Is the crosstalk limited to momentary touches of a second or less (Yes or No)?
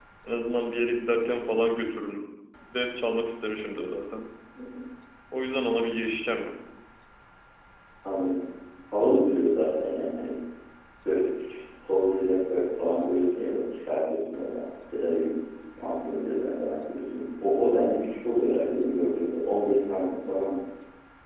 Yes